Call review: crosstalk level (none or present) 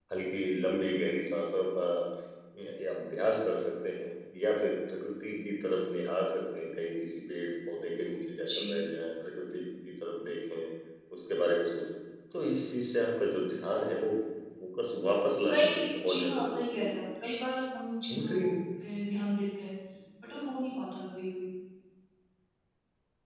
present